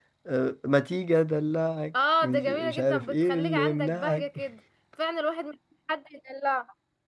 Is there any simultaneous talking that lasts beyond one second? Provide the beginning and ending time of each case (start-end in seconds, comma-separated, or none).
2.2-4.2